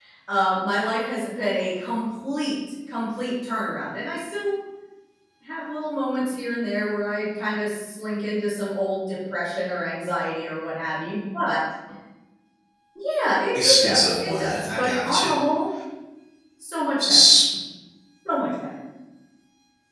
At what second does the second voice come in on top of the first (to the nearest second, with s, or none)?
14 s